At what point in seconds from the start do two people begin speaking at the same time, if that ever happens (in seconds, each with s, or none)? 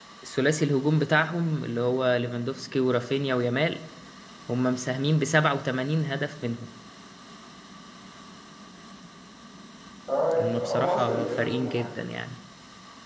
10.4 s